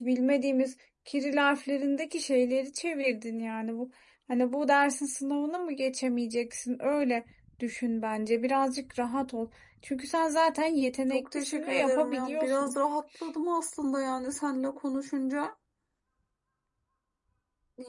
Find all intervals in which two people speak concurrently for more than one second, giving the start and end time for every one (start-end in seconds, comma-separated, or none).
11.1-12.8